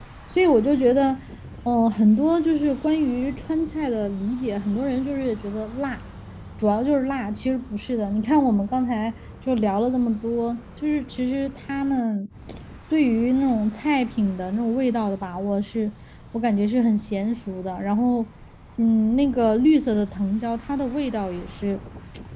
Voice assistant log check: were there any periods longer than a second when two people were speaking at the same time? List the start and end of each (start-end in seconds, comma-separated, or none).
none